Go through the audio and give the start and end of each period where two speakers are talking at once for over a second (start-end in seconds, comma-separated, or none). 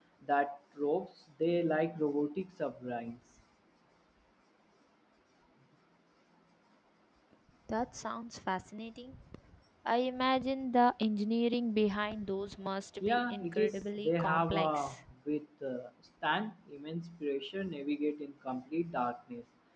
13.0-15.0